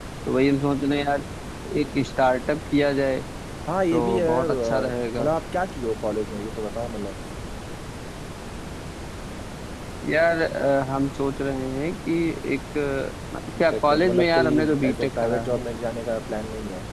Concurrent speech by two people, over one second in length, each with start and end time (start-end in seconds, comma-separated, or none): 3.9-5.3, 13.6-15.6